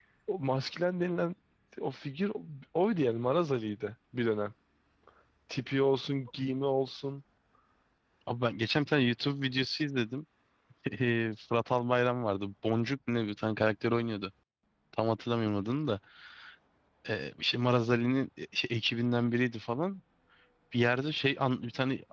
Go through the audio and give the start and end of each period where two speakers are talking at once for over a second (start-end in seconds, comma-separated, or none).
none